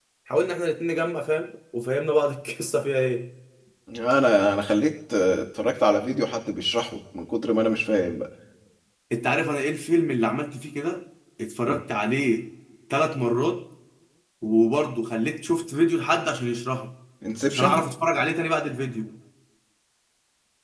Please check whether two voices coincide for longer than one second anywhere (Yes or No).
No